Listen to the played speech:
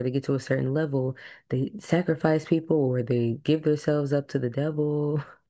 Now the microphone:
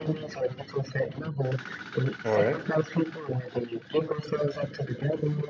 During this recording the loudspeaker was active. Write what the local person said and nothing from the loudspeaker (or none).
all right,